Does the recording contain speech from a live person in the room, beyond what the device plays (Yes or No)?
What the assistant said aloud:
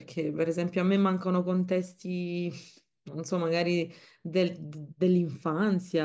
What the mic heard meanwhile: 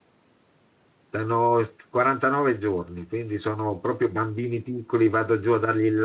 Yes